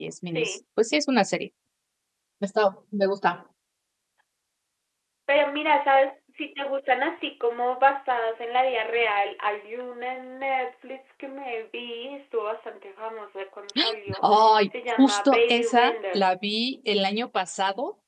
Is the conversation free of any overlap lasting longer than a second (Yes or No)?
No